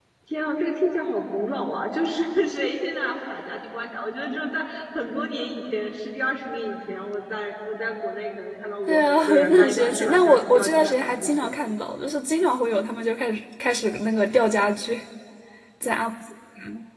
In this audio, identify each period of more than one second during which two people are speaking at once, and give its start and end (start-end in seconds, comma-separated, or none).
8.9-11.5